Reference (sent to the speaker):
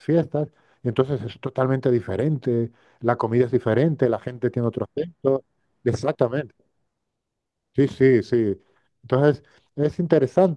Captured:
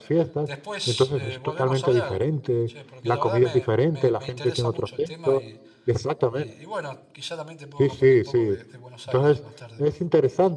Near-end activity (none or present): present